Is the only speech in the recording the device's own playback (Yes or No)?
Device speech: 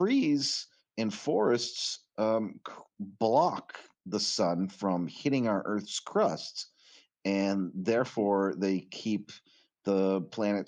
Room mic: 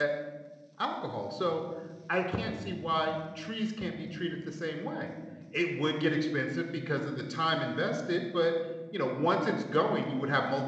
No